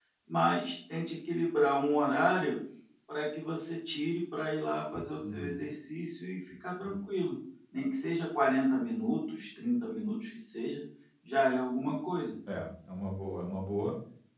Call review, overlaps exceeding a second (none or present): none